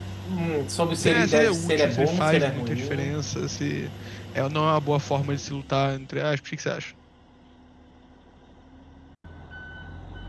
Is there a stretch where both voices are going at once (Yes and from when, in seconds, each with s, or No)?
Yes, from 1.0 s